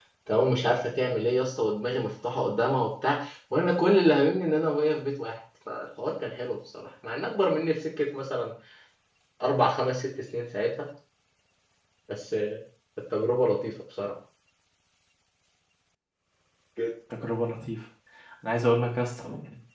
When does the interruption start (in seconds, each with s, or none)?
none